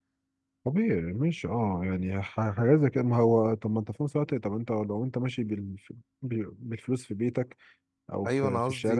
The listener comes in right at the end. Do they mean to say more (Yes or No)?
Yes